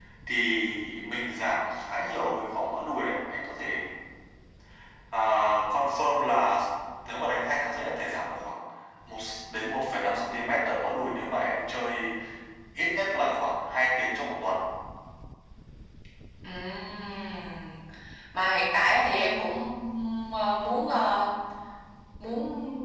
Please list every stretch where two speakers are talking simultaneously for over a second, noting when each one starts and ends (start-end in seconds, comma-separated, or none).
none